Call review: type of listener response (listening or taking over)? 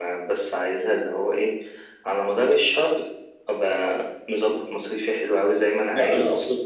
taking over